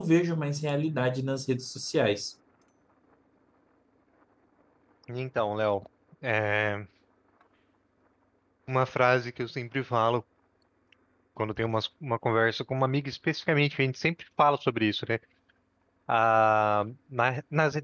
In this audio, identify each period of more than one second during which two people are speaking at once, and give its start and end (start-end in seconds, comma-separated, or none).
none